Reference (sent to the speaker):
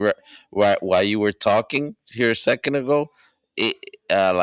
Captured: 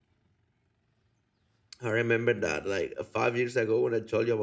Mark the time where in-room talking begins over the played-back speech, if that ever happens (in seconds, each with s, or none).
1.8 s